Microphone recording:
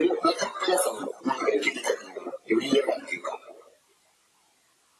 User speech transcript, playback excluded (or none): none